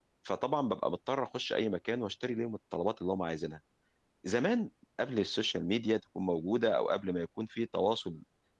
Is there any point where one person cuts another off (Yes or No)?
No